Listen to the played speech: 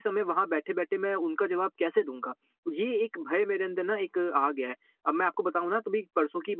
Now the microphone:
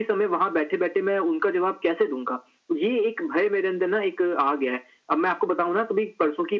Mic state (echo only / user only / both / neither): echo only